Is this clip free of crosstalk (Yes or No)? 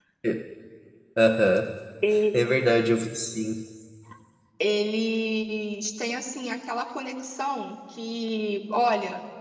Yes